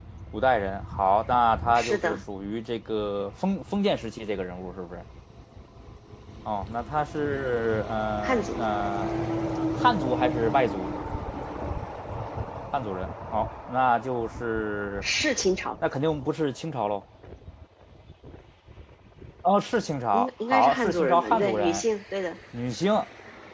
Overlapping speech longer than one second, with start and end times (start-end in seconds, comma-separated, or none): 20.1-21.8